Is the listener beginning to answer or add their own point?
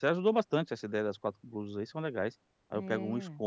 No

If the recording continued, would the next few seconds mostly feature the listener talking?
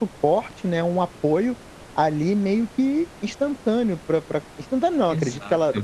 No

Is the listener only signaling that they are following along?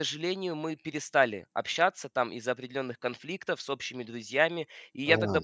Yes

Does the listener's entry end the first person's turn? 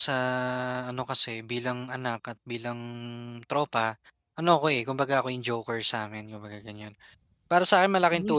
No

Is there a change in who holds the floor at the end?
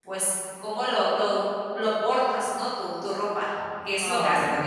Yes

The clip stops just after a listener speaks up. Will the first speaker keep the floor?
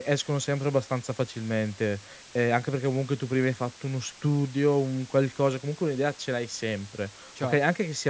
Yes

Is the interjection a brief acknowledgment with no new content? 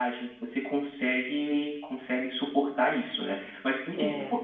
Yes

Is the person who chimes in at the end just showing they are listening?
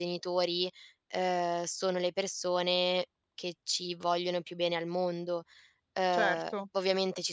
Yes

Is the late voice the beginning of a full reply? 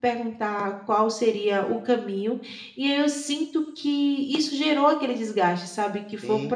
Yes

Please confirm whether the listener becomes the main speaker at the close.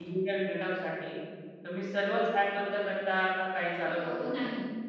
Yes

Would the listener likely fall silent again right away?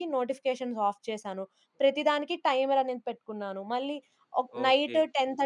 No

